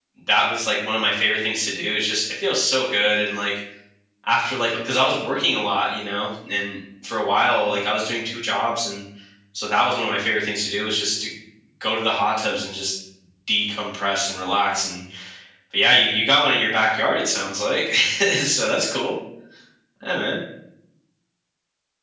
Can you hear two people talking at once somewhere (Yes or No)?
No